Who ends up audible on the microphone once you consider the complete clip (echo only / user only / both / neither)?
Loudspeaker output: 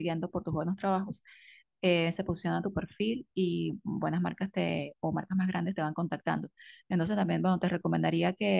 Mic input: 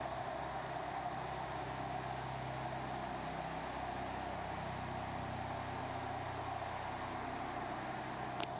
neither